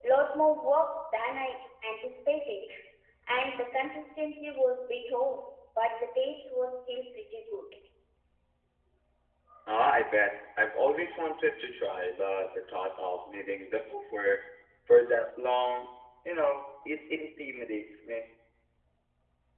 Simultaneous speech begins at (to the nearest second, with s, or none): none